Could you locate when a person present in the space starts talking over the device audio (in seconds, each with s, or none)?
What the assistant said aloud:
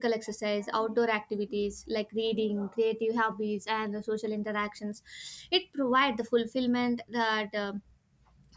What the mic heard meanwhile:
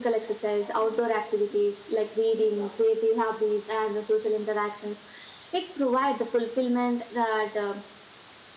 none